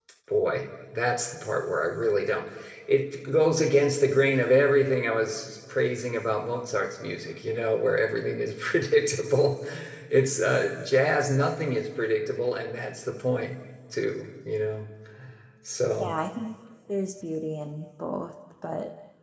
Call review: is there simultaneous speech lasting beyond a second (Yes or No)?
No